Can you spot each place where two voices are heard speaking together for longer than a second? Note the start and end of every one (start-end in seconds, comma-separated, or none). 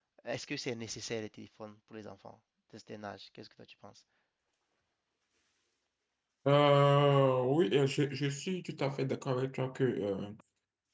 none